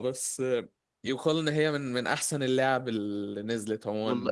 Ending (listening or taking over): taking over